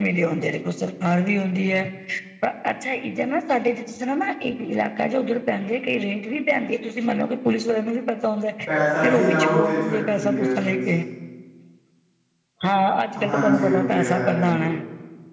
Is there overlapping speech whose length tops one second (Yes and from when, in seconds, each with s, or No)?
Yes, from 9.0 s